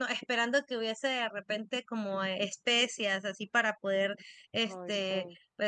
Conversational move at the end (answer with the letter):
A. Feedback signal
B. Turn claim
A